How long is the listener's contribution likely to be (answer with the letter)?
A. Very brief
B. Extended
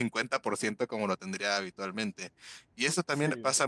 A